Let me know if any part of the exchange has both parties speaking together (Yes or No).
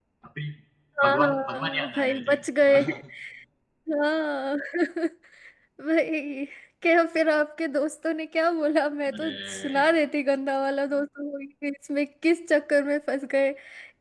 Yes